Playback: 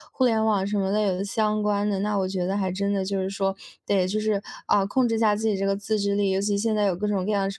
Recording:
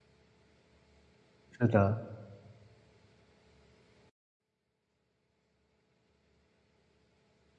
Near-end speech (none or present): present